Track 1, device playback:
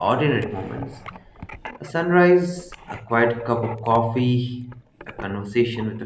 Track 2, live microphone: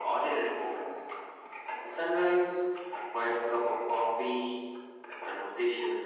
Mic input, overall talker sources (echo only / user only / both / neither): echo only